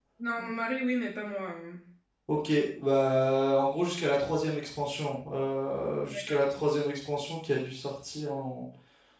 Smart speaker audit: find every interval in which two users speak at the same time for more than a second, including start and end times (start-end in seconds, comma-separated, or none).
none